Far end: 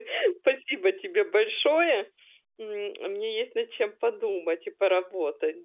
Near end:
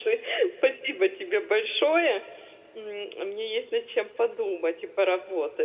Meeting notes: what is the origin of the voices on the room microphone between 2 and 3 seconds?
echo only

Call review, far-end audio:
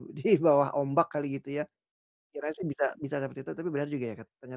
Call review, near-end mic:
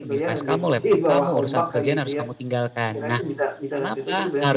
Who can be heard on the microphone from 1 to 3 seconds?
both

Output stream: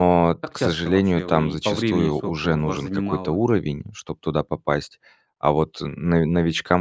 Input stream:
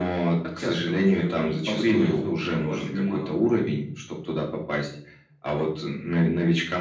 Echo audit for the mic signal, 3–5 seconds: echo only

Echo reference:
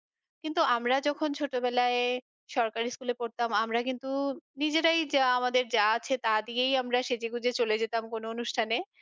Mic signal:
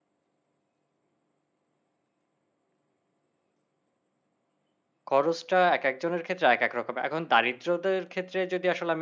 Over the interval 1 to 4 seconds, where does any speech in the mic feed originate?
neither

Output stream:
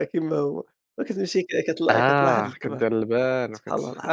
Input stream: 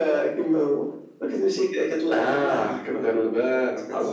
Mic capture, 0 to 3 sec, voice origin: echo only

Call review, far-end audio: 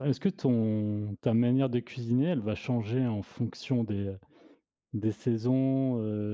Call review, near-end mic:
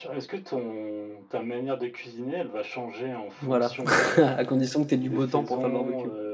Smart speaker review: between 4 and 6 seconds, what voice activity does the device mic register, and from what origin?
both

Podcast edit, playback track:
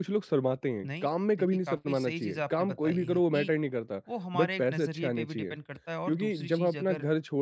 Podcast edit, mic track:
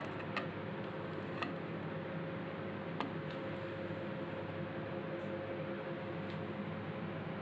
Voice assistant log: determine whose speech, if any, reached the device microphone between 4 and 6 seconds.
neither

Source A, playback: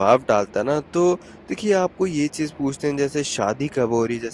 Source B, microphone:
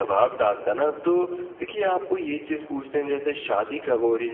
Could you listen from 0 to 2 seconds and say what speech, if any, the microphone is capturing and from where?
echo only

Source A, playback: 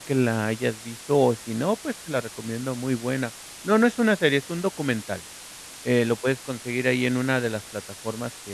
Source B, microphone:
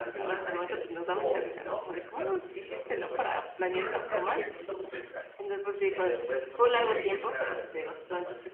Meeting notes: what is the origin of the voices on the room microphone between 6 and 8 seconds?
both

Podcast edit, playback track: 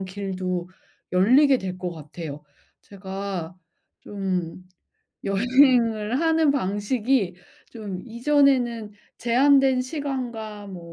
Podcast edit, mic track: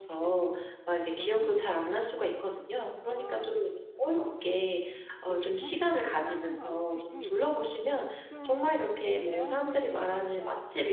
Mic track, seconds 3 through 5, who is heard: both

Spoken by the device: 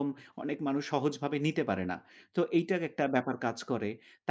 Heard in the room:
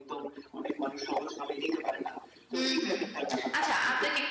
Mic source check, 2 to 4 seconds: both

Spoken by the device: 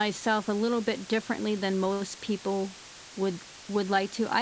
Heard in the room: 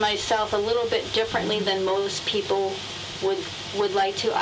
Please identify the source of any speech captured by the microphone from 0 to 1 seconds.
echo only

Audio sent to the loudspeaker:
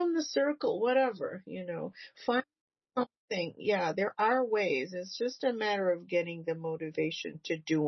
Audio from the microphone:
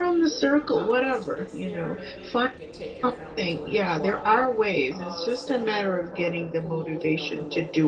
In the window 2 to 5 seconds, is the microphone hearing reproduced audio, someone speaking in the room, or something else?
both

